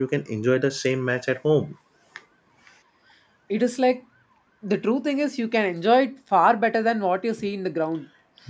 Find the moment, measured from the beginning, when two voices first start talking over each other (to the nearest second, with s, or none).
none